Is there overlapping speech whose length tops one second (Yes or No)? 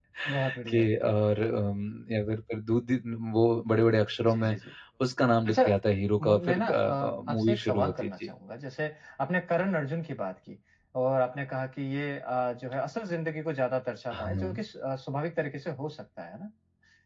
Yes